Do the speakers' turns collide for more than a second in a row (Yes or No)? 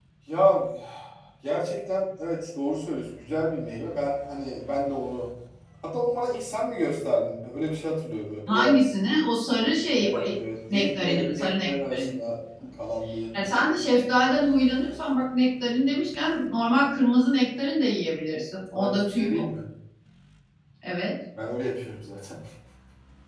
Yes